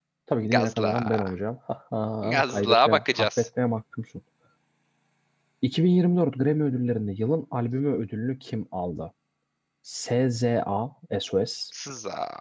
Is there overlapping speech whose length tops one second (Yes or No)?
Yes